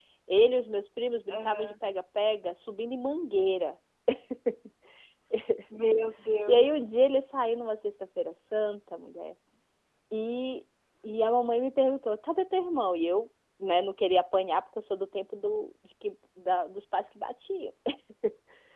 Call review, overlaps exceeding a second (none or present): none